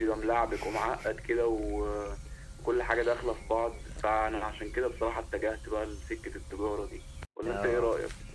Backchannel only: No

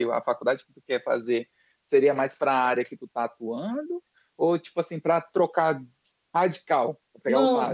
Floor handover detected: Yes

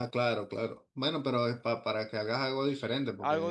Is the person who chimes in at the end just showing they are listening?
No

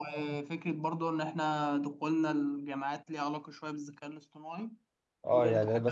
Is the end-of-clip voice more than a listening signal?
Yes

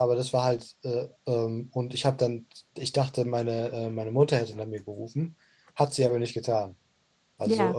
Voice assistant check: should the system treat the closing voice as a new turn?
No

